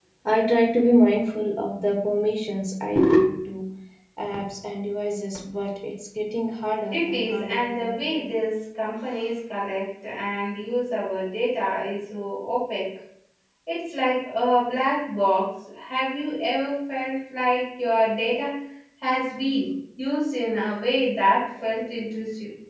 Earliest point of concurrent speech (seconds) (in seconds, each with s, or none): 6.9 s